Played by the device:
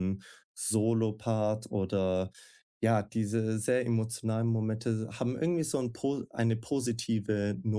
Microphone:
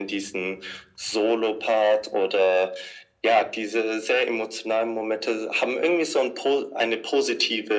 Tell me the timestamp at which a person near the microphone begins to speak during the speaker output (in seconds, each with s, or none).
none